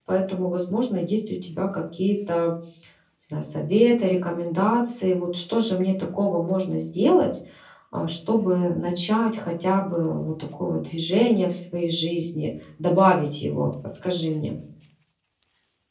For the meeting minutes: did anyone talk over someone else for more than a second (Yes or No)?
No